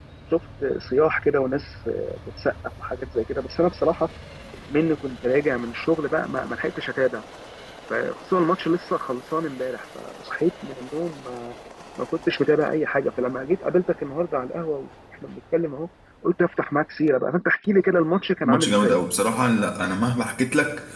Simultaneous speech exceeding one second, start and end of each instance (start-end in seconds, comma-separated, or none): none